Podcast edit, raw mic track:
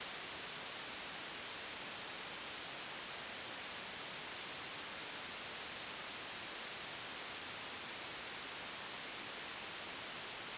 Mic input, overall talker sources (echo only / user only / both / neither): neither